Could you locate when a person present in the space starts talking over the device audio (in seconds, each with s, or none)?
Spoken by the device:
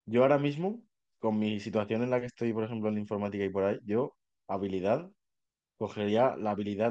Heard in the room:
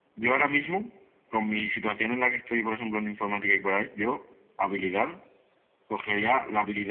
none